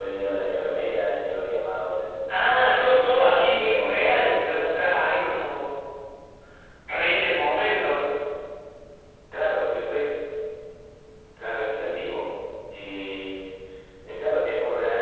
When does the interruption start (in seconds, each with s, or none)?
2.6 s